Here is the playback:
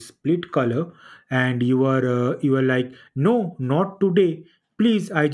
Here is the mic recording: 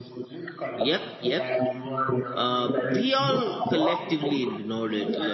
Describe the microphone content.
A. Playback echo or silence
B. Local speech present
B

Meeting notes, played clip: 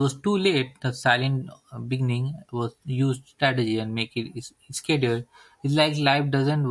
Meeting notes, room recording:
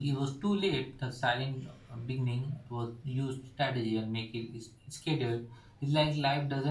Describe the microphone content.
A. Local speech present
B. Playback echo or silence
B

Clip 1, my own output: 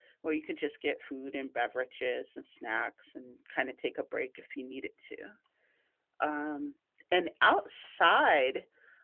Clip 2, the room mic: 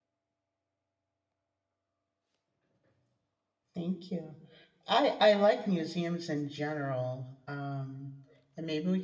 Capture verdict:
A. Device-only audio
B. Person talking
B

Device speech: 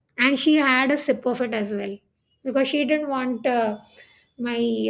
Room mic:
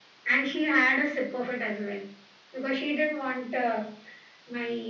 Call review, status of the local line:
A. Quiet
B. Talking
A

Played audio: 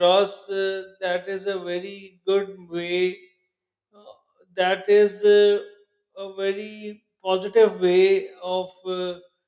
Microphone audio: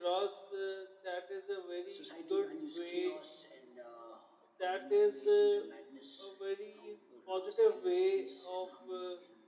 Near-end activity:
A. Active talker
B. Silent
A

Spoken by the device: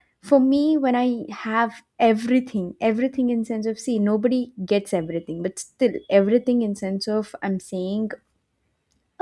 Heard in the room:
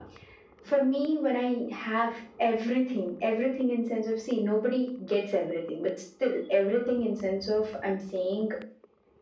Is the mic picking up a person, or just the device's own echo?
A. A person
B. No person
B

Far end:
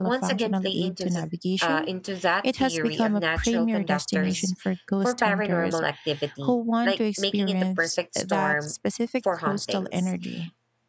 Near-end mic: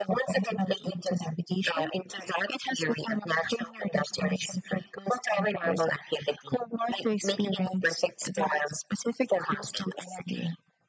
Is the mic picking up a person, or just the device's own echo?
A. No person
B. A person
A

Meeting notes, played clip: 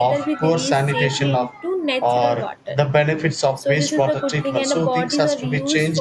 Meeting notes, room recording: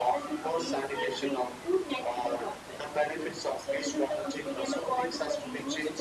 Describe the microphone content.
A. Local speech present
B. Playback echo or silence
B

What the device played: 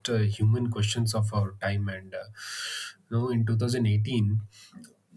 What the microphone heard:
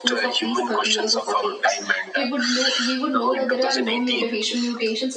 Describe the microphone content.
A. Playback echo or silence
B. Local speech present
B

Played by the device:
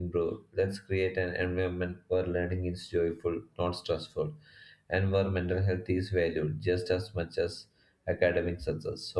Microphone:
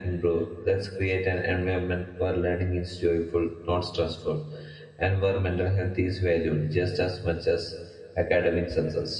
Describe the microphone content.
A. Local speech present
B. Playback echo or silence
B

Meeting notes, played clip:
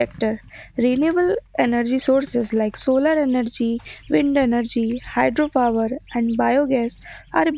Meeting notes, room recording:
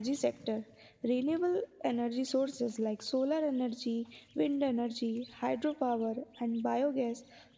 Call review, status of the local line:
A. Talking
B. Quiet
B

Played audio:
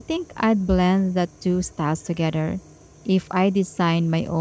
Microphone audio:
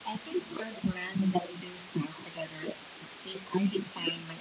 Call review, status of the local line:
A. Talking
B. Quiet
B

